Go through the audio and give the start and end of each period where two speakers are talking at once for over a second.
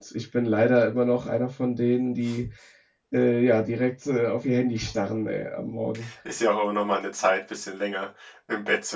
none

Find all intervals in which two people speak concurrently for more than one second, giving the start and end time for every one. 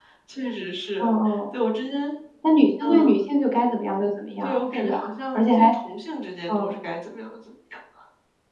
4.4-5.7

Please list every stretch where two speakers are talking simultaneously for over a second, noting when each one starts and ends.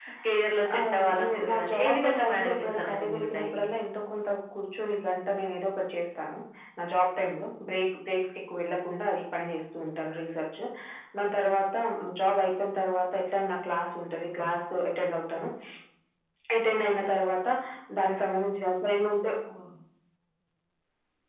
0.8-3.6

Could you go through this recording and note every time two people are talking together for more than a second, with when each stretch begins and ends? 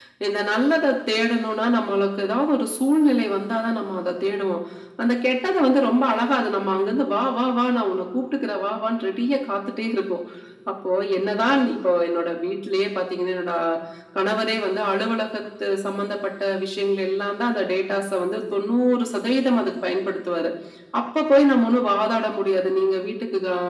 none

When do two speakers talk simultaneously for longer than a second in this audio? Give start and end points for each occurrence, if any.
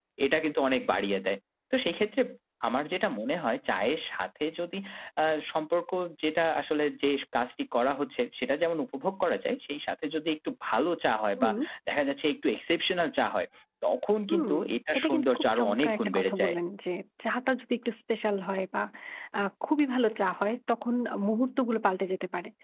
15.0-16.5

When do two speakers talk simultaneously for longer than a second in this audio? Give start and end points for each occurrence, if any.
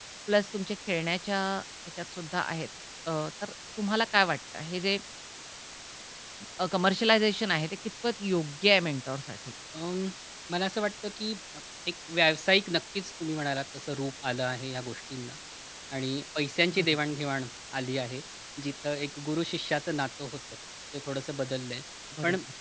none

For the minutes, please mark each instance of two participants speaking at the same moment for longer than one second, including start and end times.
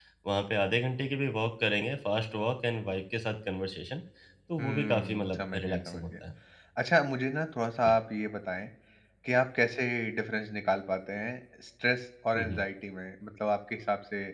4.6-6.0

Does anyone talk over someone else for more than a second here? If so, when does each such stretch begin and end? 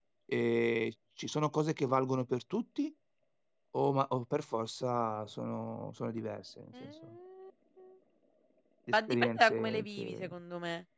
8.9-10.3

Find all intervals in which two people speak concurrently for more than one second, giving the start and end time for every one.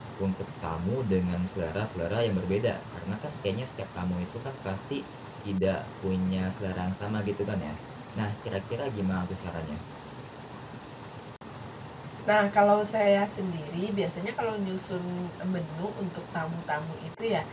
none

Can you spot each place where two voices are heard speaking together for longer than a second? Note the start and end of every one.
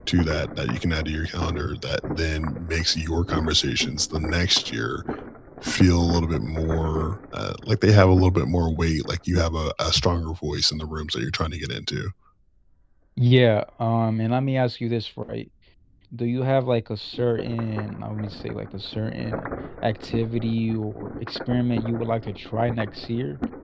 none

